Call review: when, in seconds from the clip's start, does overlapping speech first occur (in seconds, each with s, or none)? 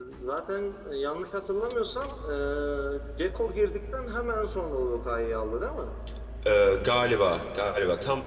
none